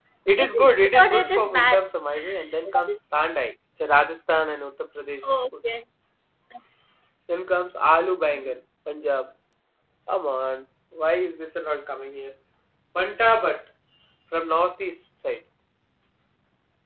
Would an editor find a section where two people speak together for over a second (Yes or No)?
Yes